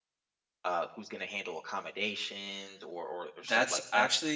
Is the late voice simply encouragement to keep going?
No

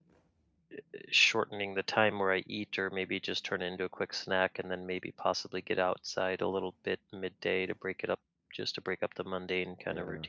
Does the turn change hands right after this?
Yes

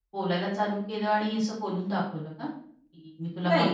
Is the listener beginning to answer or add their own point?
Yes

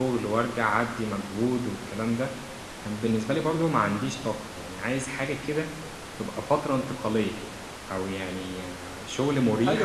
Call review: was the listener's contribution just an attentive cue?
No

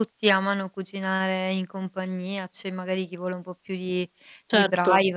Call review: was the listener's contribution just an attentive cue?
Yes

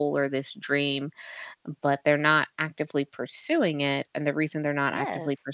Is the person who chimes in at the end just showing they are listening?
Yes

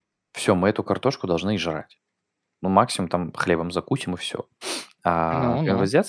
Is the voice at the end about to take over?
No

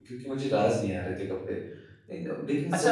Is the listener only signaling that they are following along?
No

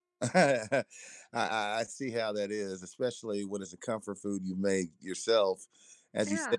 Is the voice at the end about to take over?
No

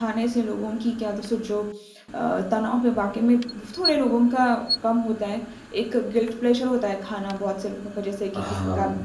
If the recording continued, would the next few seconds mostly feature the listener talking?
No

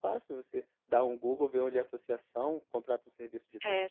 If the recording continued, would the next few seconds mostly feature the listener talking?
Yes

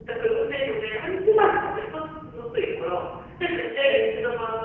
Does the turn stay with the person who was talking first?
Yes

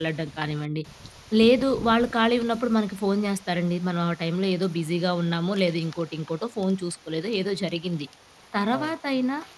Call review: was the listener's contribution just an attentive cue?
Yes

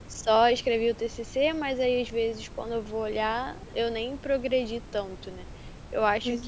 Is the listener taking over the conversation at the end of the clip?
No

